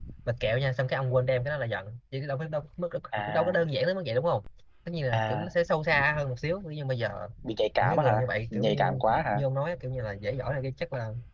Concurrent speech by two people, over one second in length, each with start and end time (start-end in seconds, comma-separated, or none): 7.8-9.4